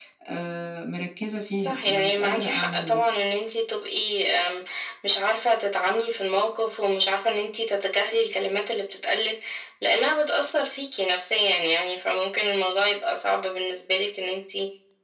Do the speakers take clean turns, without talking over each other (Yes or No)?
No